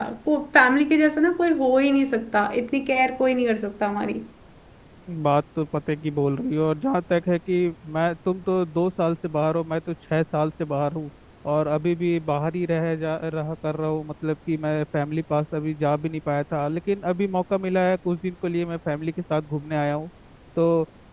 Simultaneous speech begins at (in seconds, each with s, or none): none